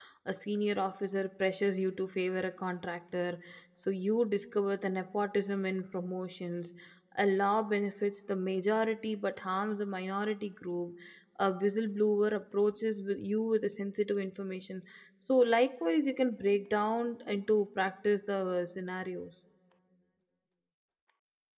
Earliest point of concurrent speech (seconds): none

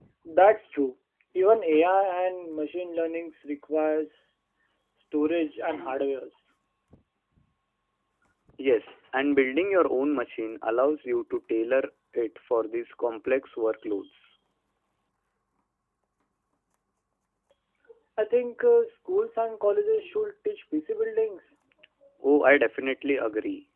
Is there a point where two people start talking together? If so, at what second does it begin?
none

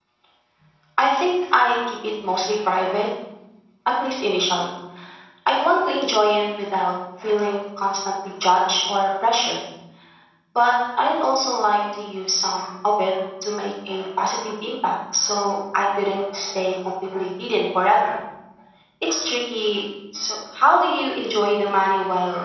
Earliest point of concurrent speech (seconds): none

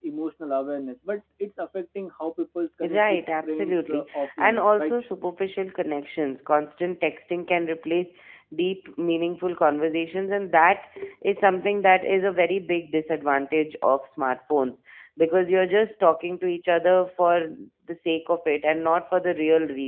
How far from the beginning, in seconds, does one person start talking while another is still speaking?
2.8 s

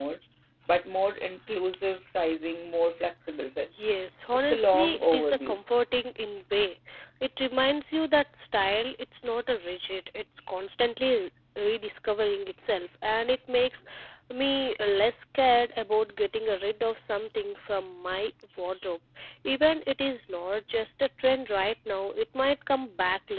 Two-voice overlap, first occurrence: 4.3 s

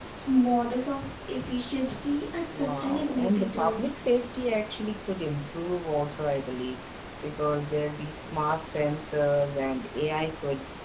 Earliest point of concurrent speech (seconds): 2.5 s

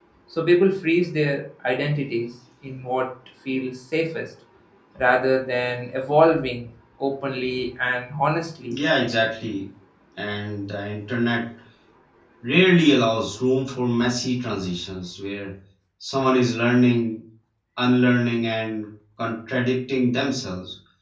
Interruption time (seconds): none

